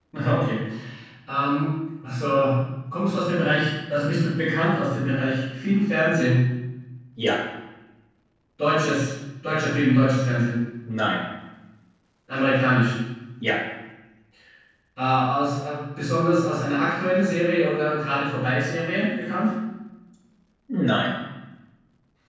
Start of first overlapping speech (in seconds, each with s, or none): none